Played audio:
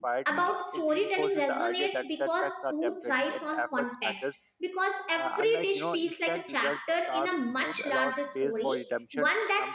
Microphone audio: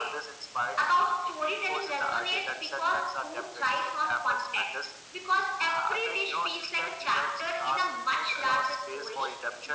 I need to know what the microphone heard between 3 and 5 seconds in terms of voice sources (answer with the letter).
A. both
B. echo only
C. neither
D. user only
B